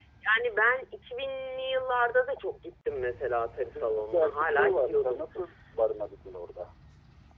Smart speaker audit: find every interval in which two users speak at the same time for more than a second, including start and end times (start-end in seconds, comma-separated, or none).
3.6-5.2